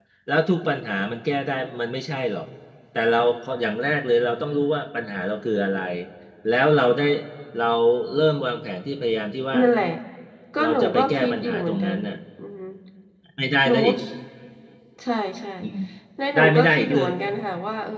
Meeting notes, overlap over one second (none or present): present